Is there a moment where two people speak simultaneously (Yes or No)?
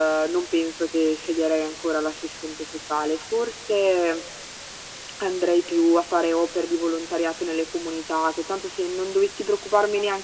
No